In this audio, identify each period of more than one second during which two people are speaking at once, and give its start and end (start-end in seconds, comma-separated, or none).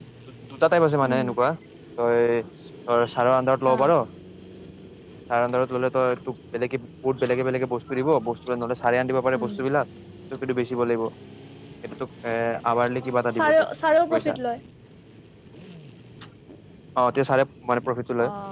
none